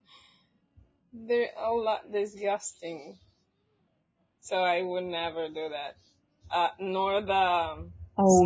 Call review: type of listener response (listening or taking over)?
taking over